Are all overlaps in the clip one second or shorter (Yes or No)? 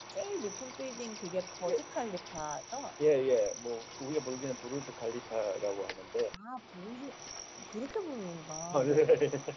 Yes